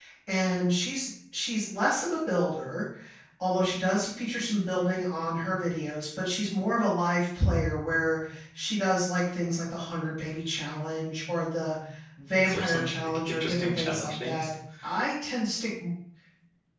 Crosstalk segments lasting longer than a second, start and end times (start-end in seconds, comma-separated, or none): 12.4-14.5